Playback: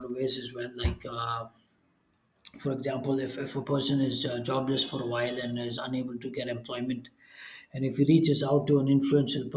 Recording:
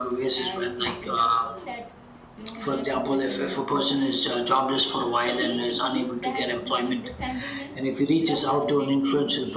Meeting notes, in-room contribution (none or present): present